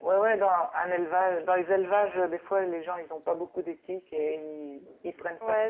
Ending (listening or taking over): taking over